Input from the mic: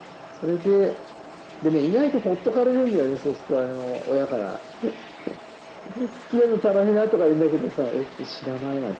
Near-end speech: none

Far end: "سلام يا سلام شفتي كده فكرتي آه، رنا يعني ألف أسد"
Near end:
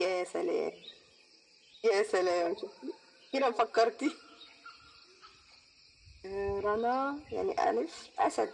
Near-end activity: none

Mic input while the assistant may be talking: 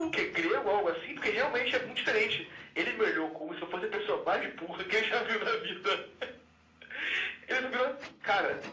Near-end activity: none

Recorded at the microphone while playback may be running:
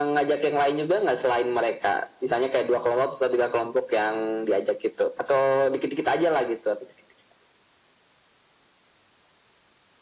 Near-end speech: none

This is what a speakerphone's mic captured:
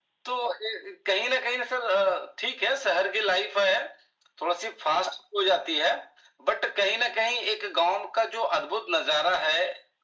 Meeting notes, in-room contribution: none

